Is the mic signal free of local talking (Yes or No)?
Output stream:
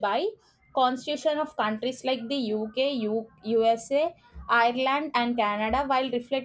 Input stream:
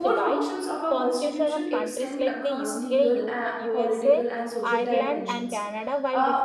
No